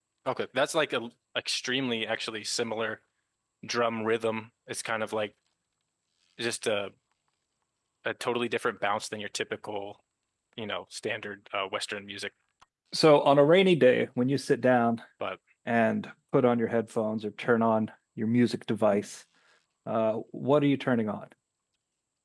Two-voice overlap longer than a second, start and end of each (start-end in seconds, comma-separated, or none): none